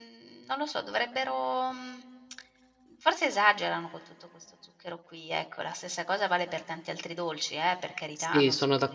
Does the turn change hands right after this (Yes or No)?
Yes